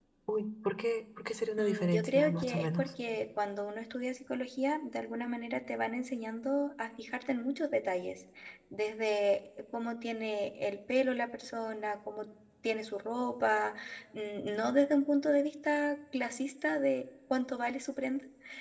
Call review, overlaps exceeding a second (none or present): present